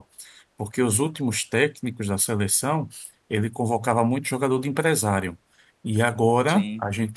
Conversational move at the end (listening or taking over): listening